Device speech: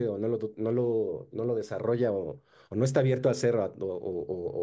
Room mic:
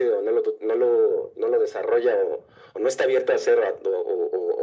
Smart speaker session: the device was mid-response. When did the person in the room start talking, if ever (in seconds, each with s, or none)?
none